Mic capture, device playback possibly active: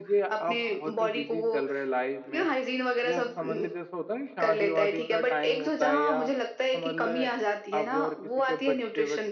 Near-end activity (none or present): present